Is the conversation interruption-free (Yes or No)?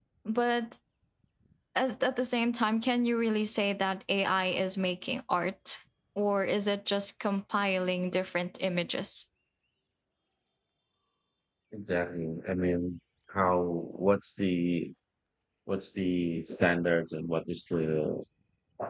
Yes